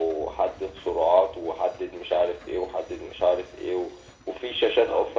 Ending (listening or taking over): listening